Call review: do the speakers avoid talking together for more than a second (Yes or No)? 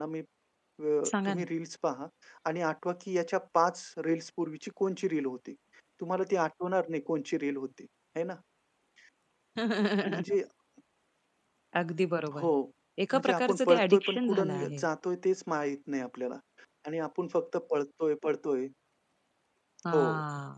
No